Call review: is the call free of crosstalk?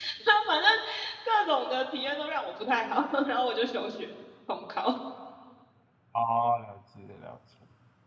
Yes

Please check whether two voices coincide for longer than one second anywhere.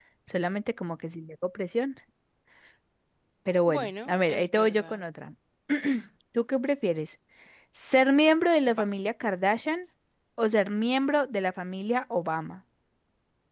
Yes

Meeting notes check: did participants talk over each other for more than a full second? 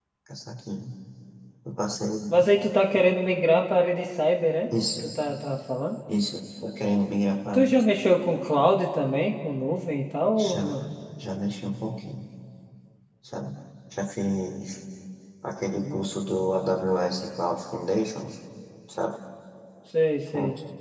No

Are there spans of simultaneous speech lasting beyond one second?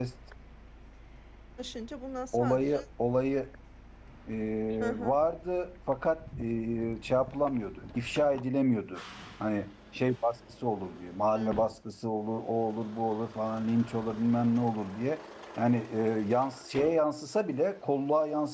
No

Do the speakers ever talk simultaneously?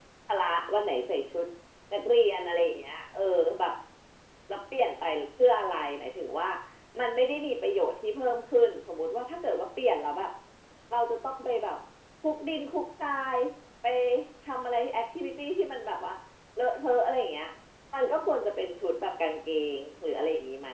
No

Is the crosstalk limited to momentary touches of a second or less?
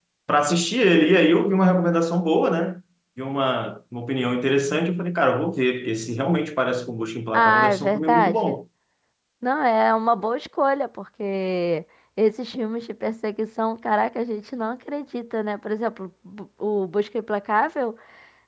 No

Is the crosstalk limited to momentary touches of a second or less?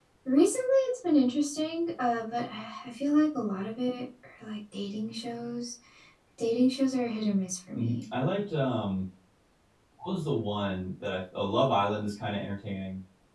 Yes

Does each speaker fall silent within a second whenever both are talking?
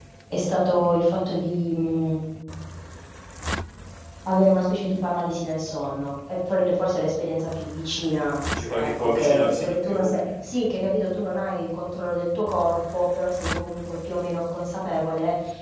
No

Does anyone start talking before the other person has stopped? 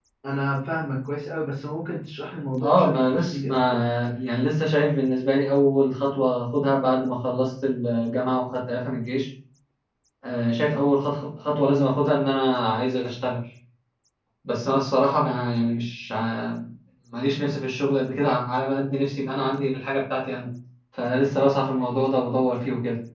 Yes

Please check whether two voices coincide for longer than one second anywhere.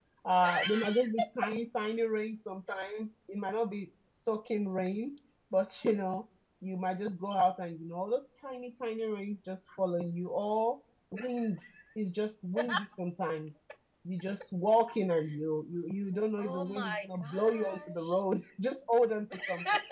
Yes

